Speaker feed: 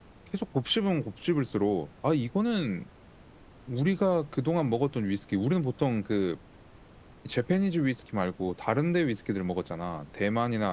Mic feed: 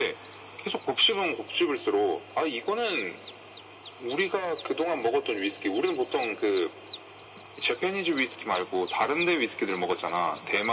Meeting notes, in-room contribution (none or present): none